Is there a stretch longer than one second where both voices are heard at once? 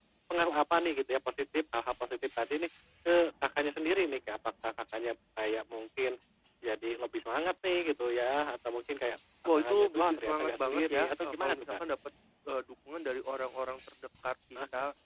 Yes, from 9.6 s

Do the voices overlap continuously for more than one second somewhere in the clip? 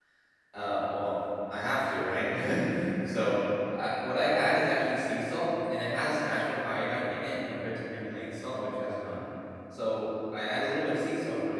No

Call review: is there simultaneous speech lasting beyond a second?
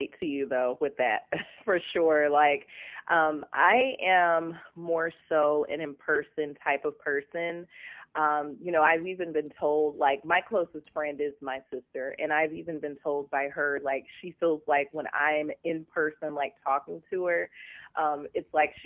No

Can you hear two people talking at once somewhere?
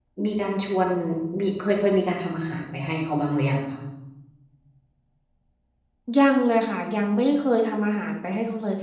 No

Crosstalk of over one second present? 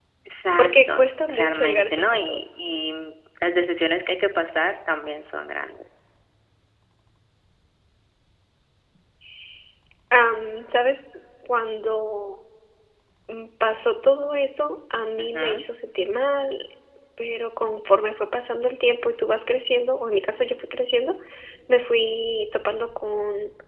Yes, from 0.6 s

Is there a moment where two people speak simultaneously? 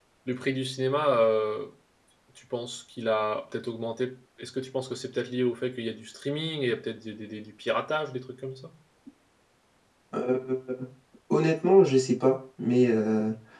No

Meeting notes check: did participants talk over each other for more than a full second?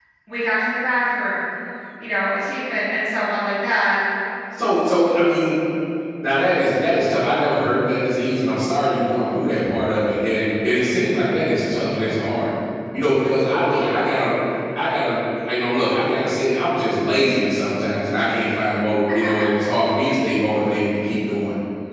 No

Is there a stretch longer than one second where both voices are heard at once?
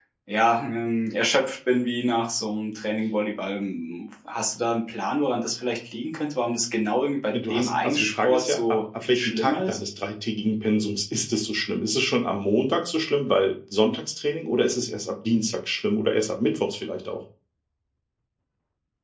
Yes, from 7.3 s

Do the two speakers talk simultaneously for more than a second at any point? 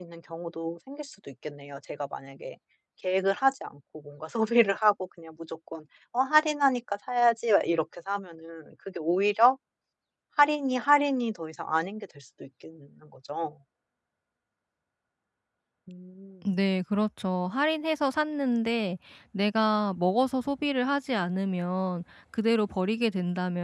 No

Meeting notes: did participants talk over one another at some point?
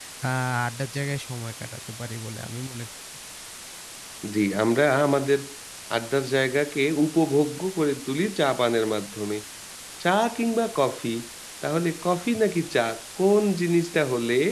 No

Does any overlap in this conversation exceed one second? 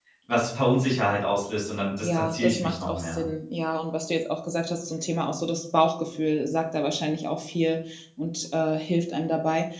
Yes, from 2.0 s

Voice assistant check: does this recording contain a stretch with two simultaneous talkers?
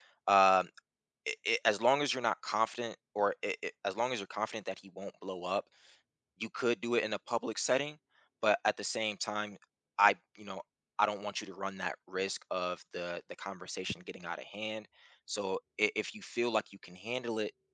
No

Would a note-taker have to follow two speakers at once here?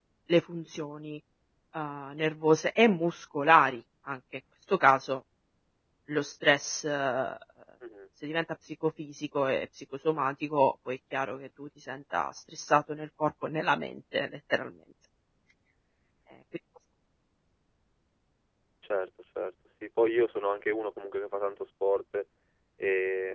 No

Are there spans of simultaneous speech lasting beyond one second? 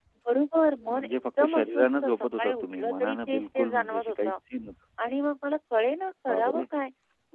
Yes, from 0.9 s

